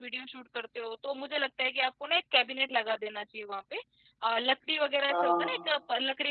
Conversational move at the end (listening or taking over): listening